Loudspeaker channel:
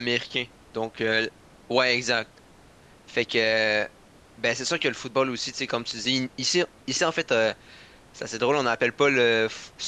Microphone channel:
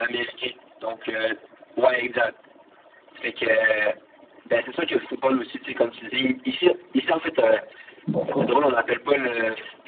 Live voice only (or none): d'accord,